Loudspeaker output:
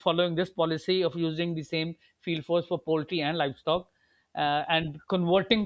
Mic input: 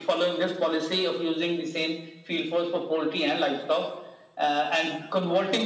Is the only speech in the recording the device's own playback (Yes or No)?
Yes